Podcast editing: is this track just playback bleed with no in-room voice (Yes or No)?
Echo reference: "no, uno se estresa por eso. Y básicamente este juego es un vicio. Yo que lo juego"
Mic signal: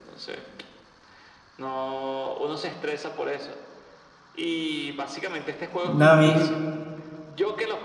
No